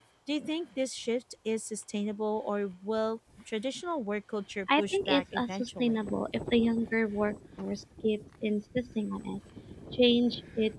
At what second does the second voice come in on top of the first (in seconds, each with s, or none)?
4.7 s